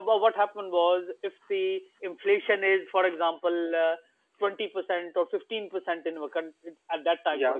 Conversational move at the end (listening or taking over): listening